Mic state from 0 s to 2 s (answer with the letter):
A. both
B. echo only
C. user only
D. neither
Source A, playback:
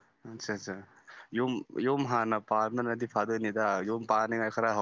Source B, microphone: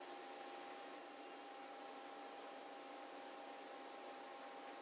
D